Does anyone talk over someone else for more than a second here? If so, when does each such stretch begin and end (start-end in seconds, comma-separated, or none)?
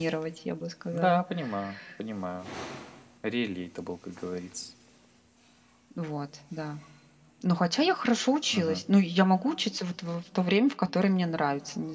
none